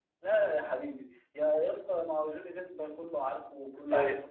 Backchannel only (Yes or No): No